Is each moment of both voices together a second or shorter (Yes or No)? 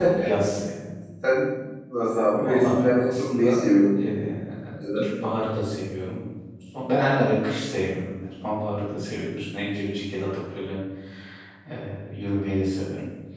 No